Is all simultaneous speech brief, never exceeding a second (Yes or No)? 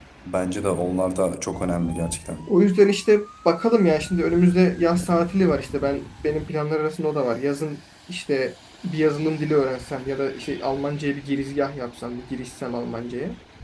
Yes